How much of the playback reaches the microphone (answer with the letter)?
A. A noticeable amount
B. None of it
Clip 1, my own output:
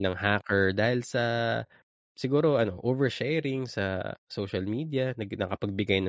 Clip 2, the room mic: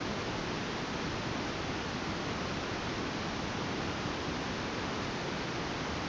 B